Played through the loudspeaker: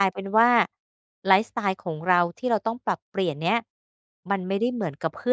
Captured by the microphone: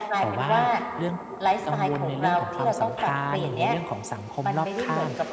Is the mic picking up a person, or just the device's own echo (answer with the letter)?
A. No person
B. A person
B